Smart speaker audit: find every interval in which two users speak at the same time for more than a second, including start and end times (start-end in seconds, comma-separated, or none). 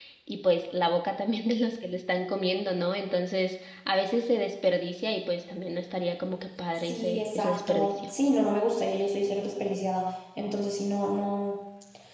6.8-8.1